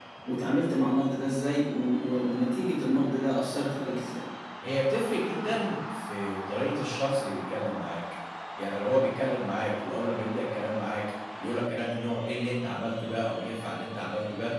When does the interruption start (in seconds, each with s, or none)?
none